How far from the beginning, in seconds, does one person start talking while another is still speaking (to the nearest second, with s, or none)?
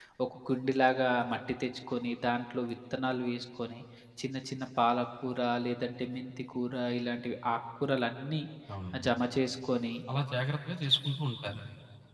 none